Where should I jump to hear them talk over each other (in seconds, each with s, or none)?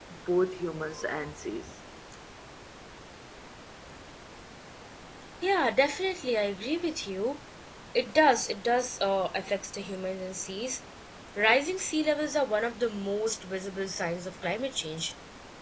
none